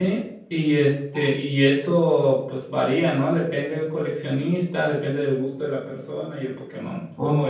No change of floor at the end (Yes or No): No